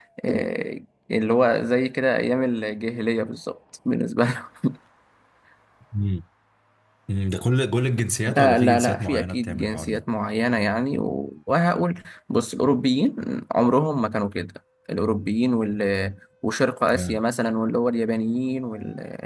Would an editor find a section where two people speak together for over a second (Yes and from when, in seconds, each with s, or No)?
Yes, from 8.3 s